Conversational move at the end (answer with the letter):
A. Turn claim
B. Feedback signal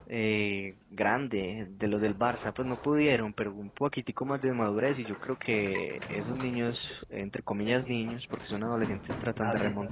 A